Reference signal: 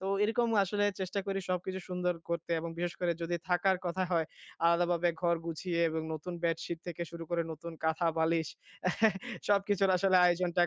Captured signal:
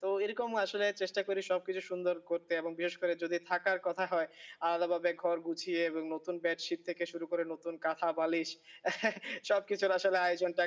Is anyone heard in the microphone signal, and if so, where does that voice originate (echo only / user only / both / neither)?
echo only